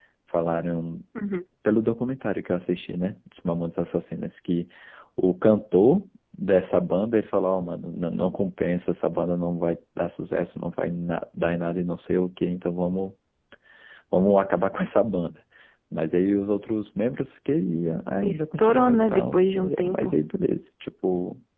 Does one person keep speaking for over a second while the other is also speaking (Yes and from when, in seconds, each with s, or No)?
Yes, from 18.2 s